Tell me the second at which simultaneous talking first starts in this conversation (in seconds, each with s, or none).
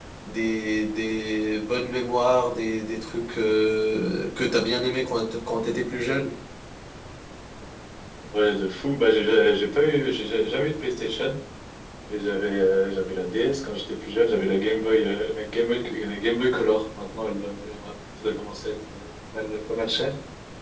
none